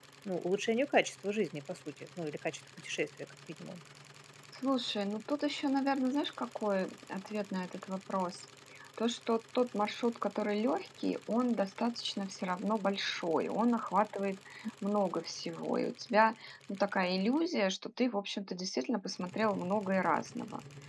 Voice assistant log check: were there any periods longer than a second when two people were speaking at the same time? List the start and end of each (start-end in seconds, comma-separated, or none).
none